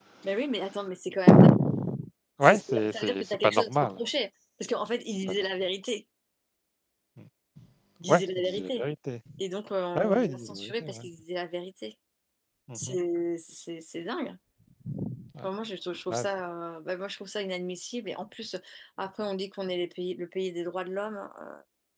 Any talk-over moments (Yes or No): Yes